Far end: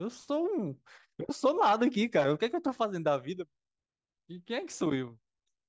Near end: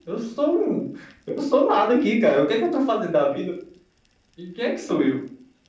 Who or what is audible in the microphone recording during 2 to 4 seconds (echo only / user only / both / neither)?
echo only